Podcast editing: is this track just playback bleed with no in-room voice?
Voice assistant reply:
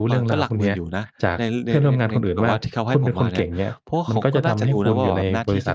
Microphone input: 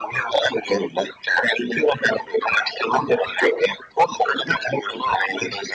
Yes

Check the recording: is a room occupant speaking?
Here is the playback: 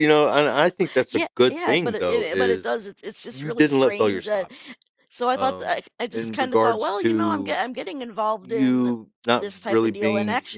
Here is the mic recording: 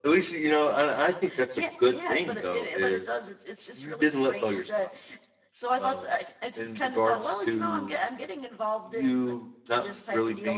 No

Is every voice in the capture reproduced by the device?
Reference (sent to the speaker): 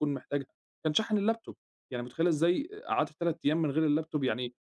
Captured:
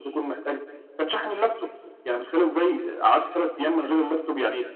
Yes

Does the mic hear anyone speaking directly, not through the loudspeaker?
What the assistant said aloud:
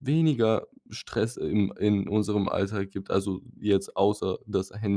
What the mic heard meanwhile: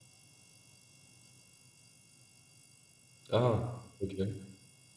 Yes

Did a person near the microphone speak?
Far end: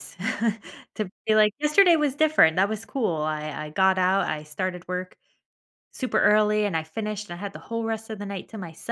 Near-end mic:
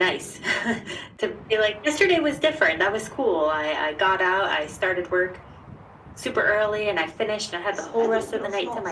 Yes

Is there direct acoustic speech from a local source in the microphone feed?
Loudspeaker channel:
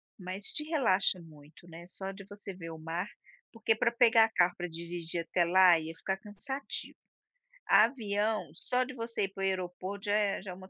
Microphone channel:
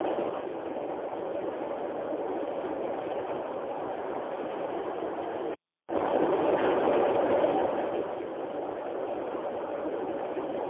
No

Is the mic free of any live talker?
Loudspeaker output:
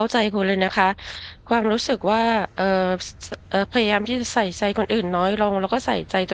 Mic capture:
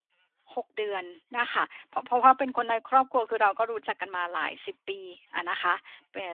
No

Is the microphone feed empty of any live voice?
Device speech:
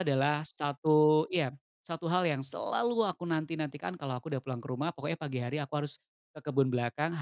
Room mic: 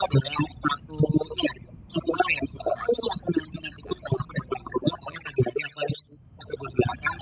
Yes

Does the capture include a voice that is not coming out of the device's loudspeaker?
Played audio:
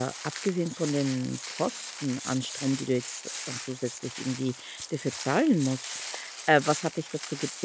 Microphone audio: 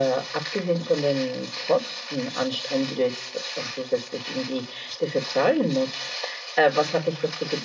Yes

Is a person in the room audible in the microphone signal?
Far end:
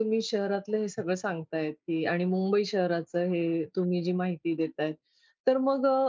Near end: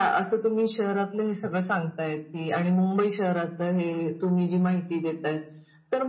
No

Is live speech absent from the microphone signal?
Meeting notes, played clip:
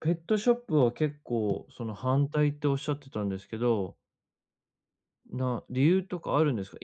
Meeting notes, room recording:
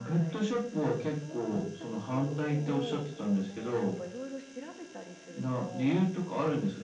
No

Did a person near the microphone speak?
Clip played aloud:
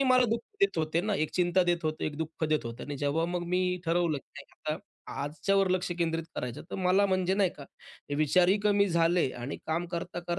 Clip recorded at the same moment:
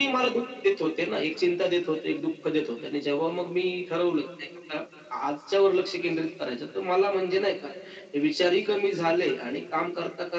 No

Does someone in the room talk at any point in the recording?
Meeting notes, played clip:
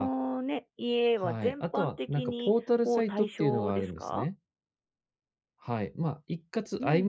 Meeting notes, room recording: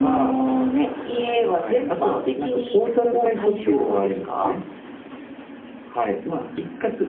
No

